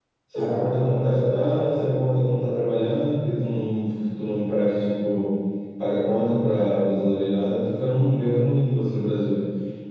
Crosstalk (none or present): present